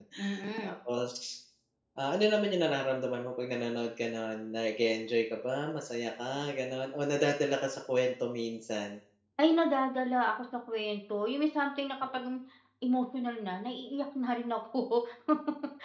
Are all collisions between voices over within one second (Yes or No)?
Yes